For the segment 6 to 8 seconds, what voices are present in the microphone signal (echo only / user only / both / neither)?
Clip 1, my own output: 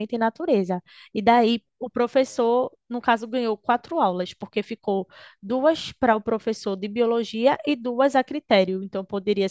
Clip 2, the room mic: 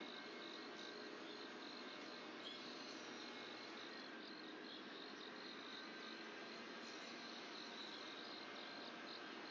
neither